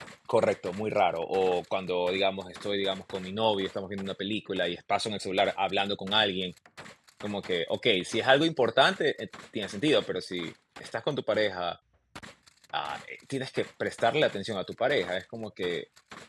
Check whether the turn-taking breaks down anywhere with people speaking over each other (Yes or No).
No